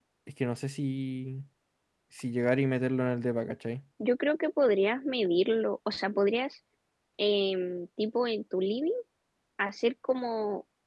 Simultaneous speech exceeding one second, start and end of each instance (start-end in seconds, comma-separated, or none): none